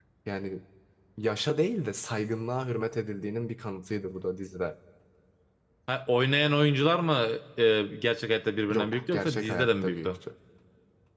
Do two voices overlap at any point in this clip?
Yes, from 8.7 s

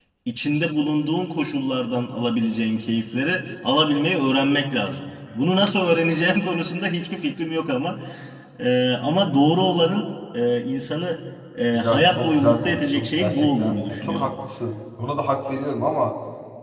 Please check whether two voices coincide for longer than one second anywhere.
Yes, from 11.7 s

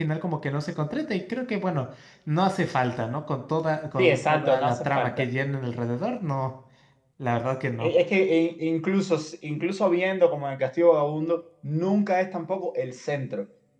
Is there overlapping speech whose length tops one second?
Yes, from 4.0 s

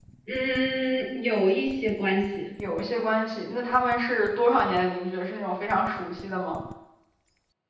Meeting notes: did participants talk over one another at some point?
No

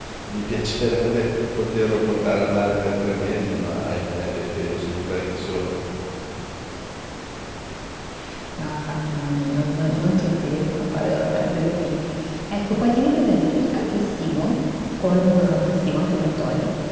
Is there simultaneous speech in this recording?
No

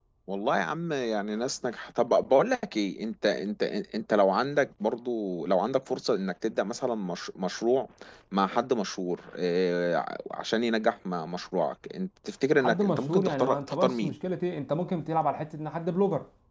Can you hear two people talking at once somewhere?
Yes, from 12.6 s

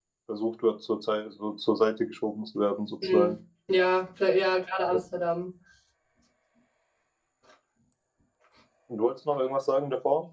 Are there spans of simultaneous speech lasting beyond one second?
No

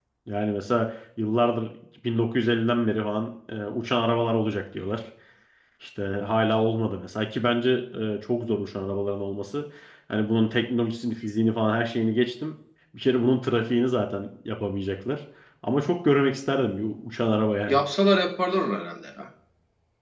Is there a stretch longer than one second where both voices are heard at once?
No

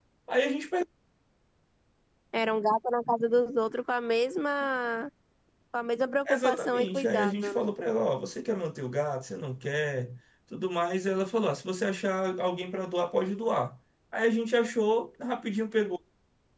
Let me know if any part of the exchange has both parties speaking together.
Yes, from 6.3 s

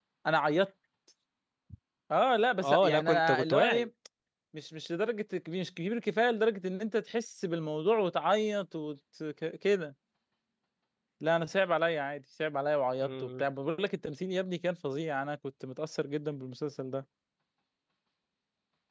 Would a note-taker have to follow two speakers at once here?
Yes, from 2.6 s

